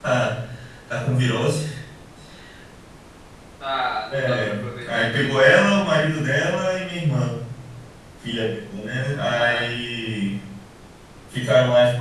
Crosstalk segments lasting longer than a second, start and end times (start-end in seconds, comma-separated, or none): 4.1-5.3